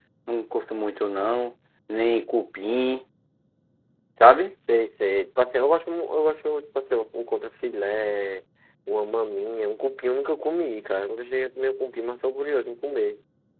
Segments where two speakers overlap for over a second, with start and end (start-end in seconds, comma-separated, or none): none